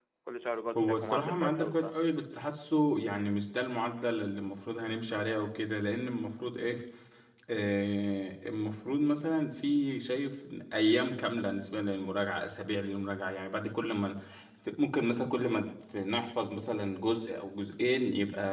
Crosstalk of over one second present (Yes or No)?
Yes